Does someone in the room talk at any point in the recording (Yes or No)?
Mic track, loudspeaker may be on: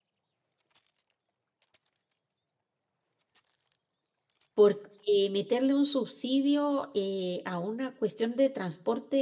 Yes